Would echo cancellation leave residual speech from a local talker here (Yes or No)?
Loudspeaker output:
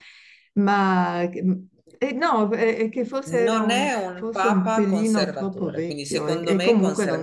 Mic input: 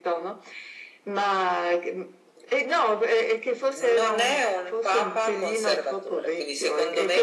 No